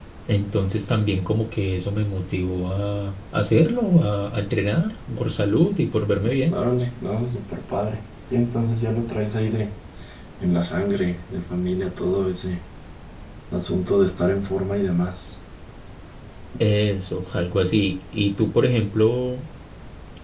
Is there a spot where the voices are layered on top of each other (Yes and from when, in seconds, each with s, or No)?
No